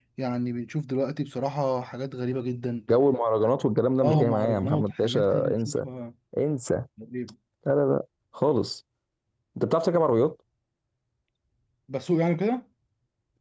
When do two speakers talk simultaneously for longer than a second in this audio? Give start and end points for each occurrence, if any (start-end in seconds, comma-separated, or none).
4.0-5.8